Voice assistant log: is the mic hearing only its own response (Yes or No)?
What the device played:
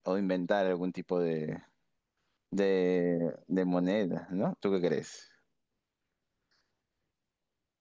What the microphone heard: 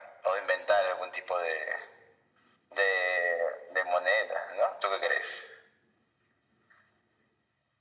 Yes